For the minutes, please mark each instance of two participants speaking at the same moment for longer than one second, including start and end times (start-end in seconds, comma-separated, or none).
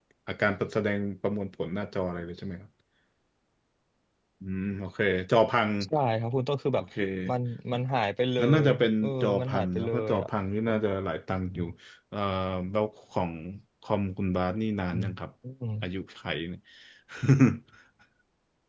8.4-10.3